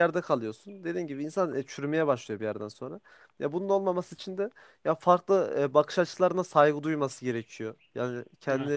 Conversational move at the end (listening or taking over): listening